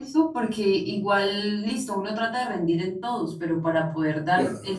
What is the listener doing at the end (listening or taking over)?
listening